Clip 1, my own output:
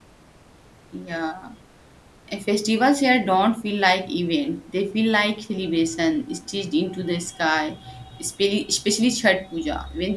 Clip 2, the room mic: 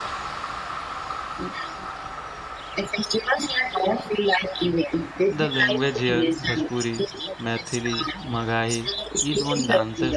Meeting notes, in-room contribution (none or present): present